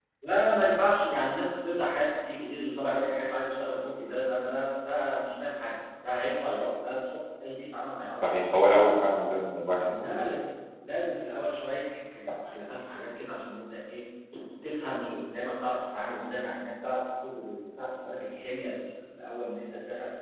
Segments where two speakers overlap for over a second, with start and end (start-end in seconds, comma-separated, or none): none